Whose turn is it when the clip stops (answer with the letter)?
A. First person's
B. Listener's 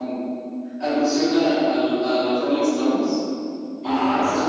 A